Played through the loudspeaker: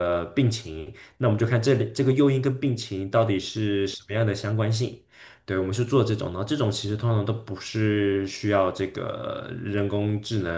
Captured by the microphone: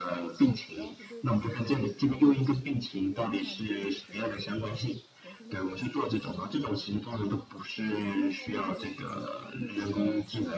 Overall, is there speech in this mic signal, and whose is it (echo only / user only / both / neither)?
both